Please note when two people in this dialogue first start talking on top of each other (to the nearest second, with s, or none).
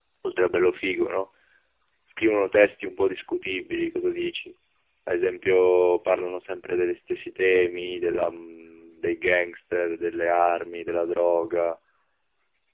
none